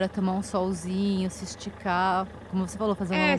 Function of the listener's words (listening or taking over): taking over